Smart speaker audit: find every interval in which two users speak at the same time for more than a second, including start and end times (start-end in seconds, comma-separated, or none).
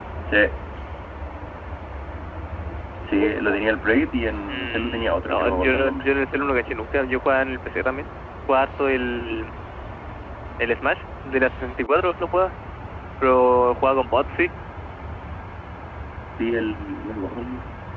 4.5-6.0